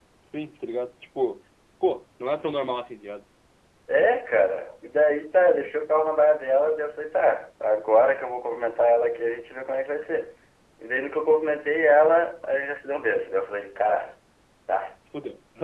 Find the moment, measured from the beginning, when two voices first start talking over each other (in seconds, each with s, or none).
none